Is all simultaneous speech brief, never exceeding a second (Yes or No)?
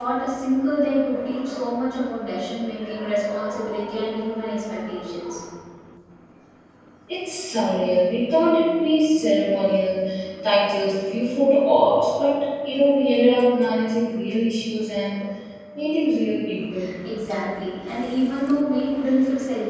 Yes